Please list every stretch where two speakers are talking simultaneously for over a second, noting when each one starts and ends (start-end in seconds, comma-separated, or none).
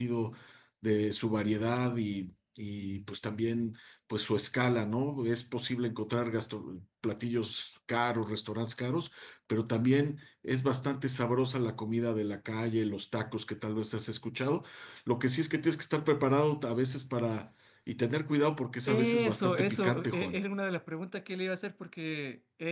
18.9-20.4